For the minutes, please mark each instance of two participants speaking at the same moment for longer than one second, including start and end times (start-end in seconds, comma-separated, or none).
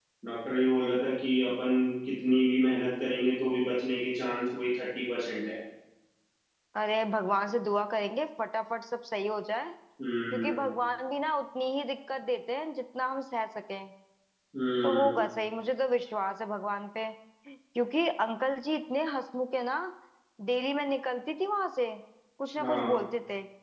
none